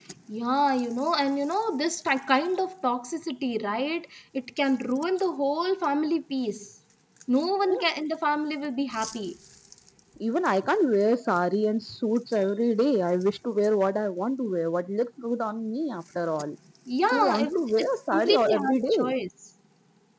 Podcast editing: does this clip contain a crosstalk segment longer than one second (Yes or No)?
Yes